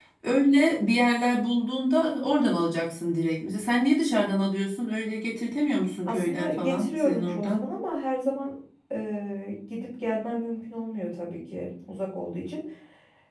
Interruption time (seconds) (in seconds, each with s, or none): 6.0 s